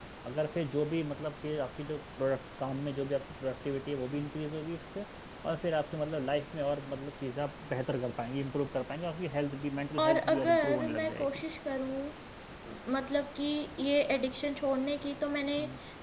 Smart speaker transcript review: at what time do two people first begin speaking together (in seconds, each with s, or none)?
10.0 s